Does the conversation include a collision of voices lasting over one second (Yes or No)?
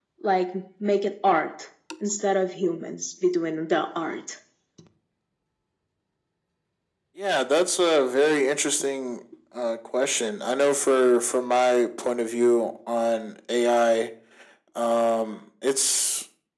No